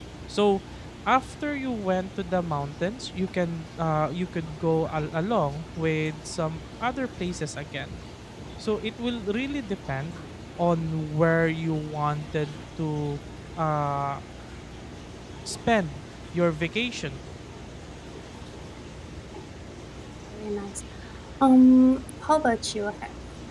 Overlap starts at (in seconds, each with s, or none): none